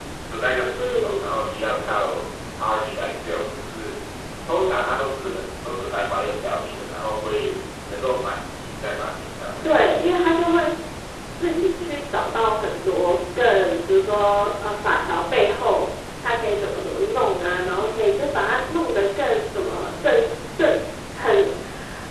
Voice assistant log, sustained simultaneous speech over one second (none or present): none